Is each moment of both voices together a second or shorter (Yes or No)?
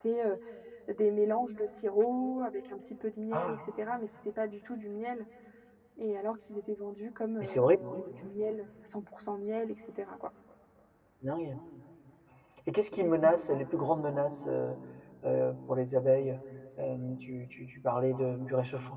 Yes